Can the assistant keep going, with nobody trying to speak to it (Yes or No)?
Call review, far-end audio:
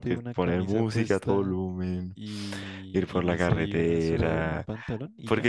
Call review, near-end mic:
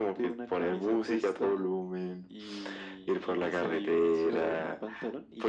Yes